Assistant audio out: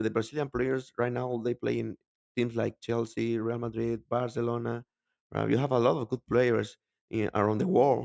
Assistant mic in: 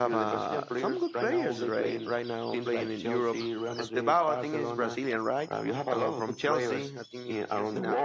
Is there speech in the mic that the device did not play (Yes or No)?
Yes